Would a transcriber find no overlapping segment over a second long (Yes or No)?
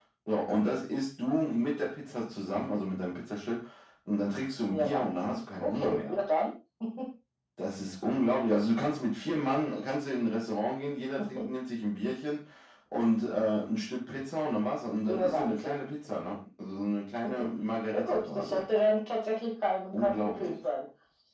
No